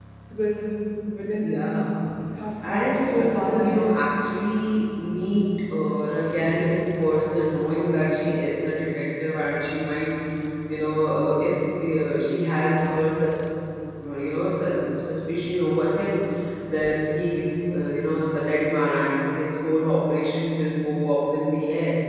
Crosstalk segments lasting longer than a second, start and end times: 2.6-3.9

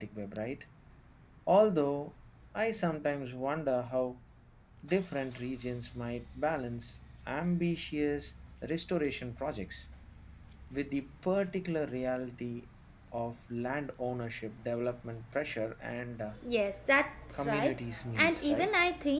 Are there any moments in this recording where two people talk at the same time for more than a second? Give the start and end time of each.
17.3-18.7

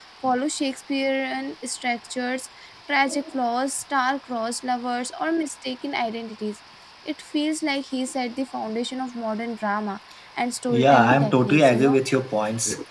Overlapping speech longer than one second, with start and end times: 10.7-12.0

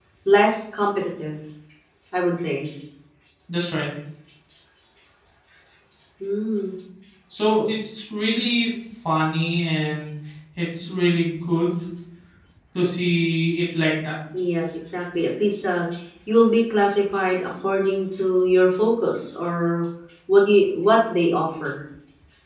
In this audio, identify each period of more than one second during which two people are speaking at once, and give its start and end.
none

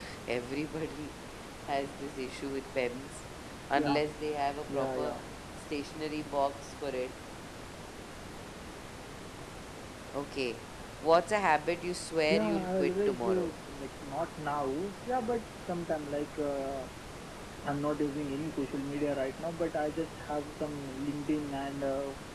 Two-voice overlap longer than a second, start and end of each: 12.3-13.5

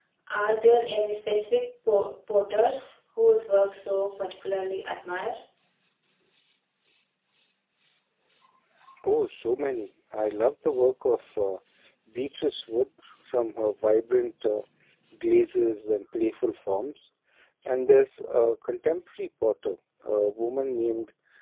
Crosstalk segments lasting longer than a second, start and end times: none

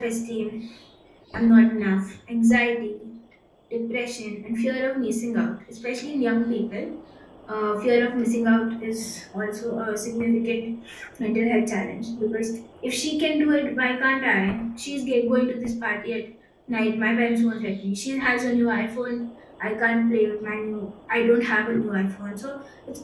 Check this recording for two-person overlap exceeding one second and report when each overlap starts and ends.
none

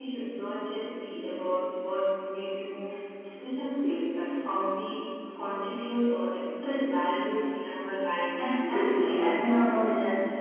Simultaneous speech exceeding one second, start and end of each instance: 8.4-9.8

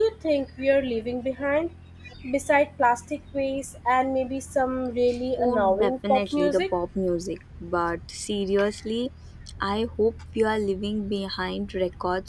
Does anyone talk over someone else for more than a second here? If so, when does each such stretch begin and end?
5.4-6.6

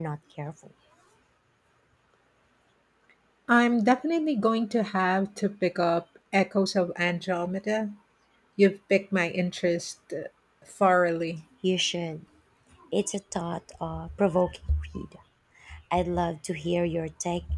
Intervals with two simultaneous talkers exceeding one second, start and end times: none

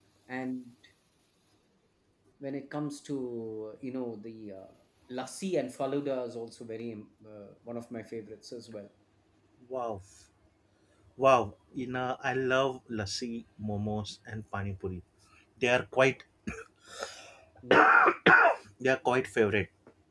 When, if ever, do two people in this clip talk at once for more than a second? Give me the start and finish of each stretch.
none

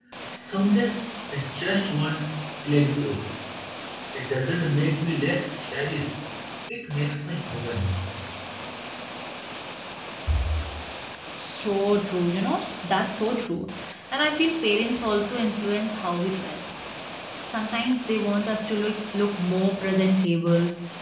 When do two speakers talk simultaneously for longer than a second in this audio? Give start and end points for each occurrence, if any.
none

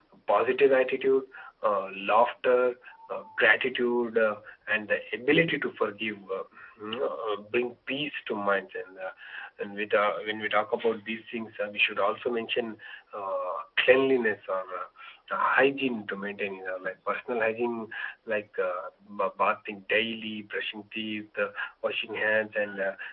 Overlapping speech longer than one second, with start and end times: none

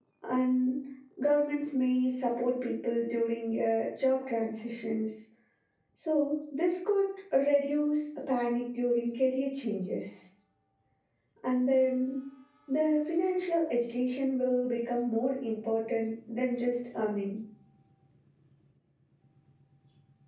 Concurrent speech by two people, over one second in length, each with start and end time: none

